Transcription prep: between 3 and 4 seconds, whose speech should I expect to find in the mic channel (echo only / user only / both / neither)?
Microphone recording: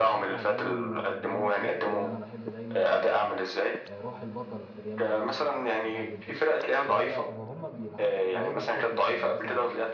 both